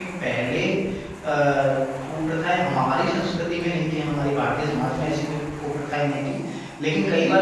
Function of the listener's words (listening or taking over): listening